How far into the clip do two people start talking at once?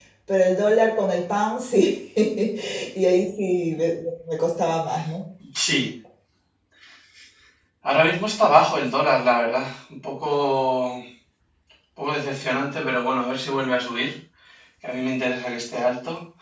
none

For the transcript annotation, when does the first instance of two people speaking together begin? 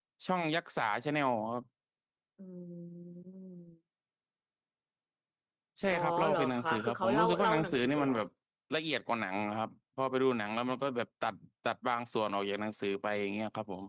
6 s

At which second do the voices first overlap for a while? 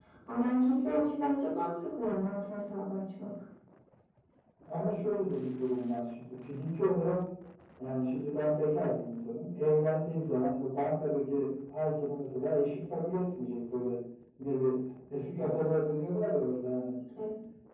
none

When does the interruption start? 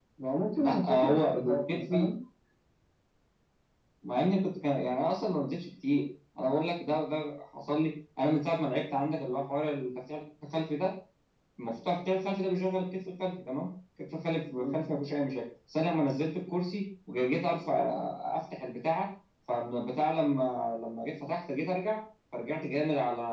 1 s

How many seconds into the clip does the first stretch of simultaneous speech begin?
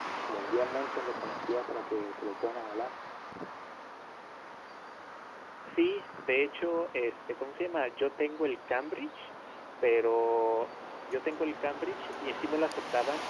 none

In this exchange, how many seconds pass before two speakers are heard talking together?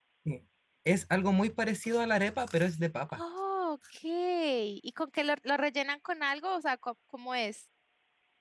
none

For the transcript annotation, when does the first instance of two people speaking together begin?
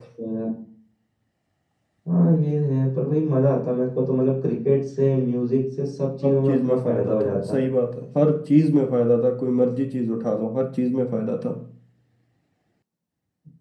6 s

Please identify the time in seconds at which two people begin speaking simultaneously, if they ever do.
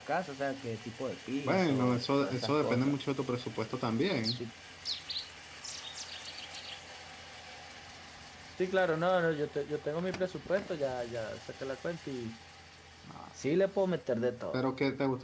1 s

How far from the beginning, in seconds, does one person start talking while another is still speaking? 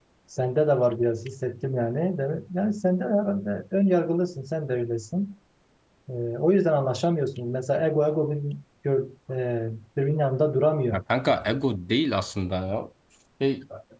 none

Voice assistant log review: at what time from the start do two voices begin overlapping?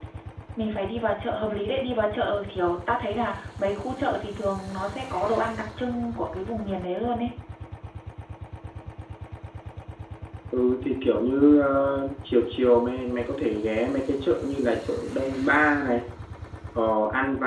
none

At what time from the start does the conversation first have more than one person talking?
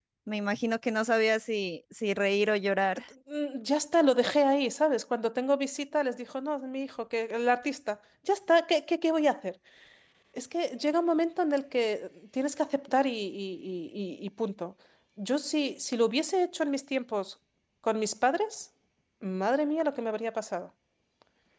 none

